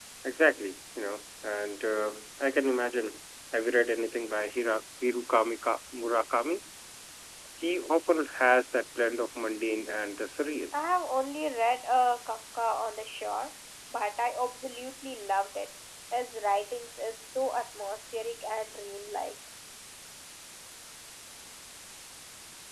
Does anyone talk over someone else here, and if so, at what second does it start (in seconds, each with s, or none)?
none